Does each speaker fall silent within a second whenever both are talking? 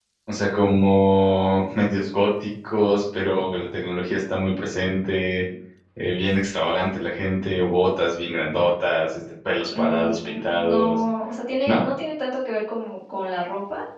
No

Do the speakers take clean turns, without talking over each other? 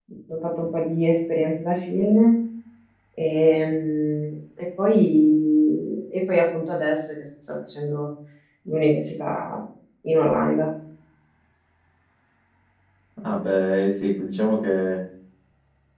Yes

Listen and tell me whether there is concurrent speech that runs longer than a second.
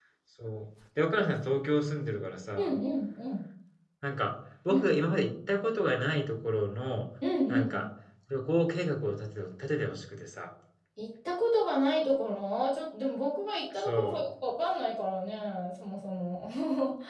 No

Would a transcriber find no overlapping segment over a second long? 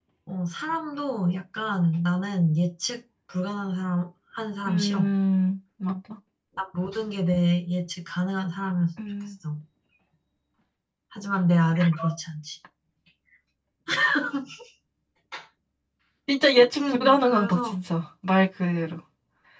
No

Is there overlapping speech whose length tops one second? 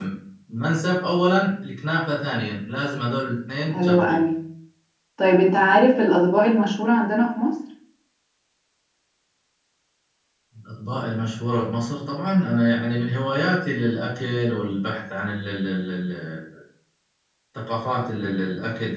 No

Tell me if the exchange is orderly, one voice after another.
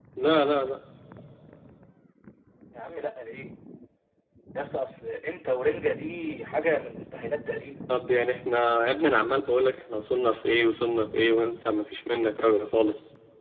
Yes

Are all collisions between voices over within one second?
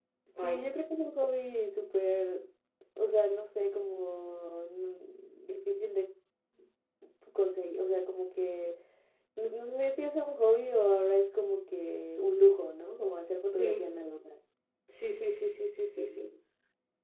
Yes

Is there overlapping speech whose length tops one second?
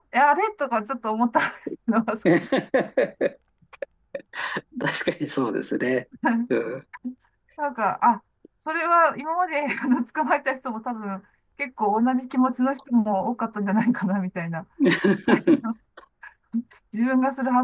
No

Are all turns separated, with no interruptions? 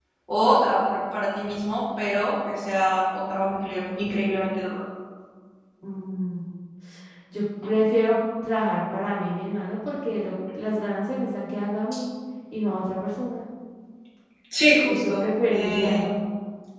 No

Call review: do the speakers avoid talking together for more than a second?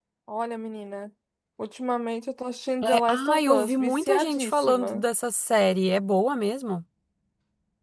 No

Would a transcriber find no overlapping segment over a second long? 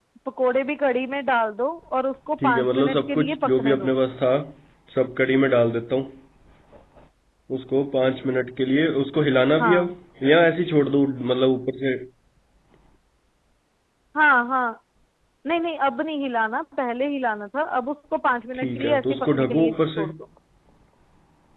No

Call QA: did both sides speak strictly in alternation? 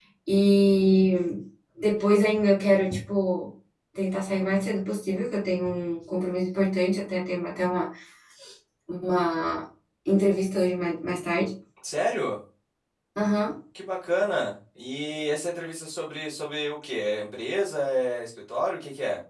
Yes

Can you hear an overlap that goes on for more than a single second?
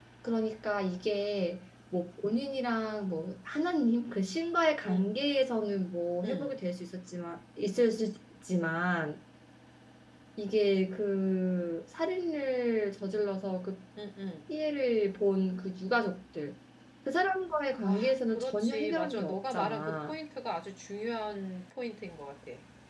Yes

